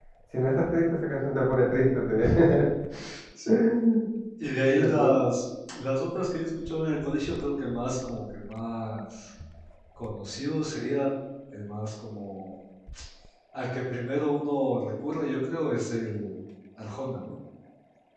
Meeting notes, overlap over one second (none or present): none